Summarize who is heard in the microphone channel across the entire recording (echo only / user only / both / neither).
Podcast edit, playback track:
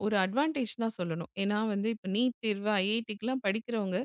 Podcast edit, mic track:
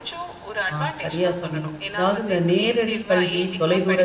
both